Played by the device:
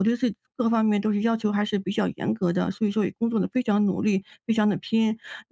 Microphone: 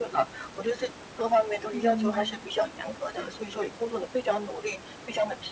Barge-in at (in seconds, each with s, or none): 1.7 s